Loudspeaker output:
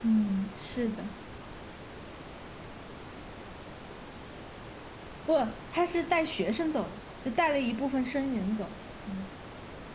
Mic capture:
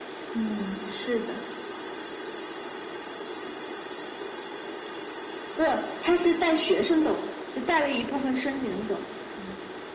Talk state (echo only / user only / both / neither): echo only